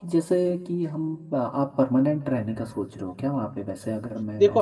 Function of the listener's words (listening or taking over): taking over